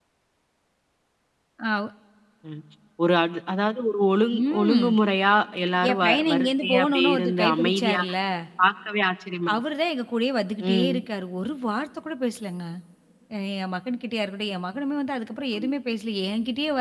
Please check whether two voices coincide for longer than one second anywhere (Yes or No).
Yes